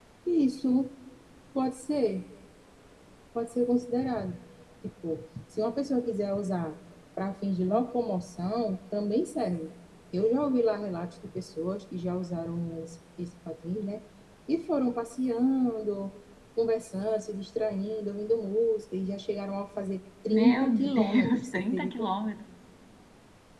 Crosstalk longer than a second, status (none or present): present